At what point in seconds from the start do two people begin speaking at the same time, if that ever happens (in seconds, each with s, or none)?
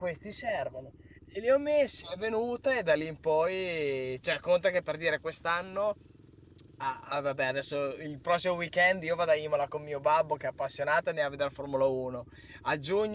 none